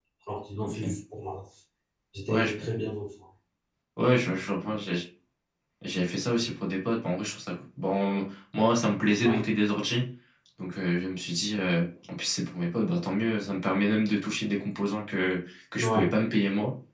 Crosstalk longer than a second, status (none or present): none